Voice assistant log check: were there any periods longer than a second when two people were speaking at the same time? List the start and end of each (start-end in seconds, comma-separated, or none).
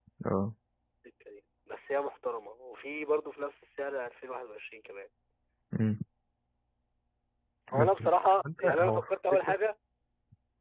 7.7-9.5